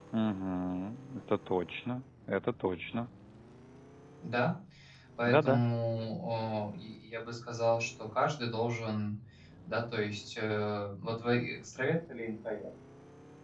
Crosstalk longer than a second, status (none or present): none